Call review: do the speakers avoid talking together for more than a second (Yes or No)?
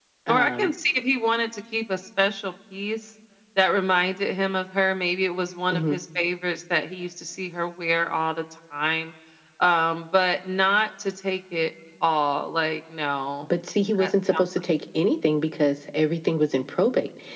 Yes